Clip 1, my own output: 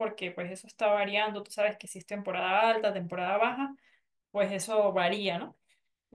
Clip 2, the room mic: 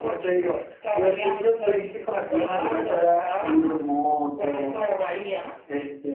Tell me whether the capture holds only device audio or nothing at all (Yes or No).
No